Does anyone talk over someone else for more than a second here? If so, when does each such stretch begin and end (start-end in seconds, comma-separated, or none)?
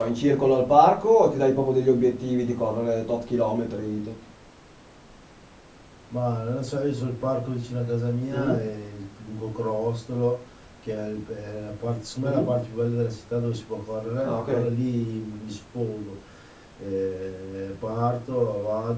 none